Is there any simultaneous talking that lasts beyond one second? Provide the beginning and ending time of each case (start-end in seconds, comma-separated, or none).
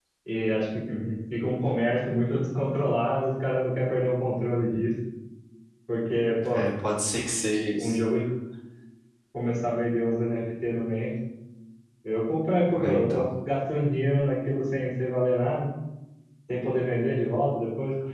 none